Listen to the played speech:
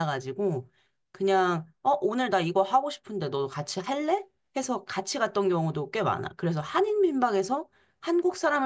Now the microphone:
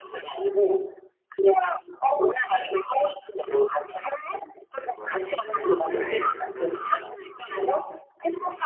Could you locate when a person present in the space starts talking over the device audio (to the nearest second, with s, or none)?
5 s